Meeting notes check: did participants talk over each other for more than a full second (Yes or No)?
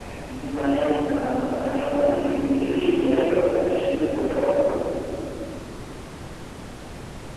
Yes